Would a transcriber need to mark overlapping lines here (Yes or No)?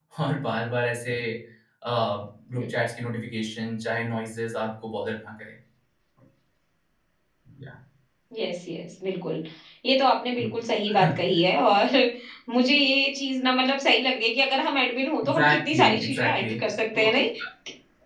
Yes